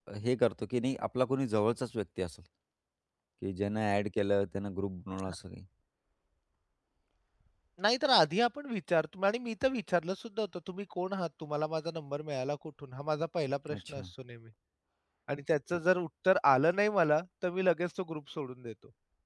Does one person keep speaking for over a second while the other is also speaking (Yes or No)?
No